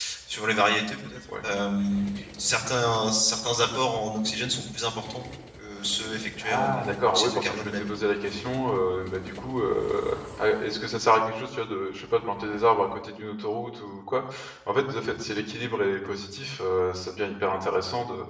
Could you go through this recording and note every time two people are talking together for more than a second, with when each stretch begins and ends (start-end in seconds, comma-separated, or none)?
6.4-7.8